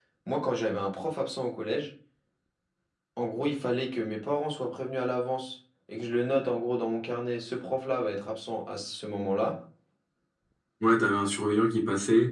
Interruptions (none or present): none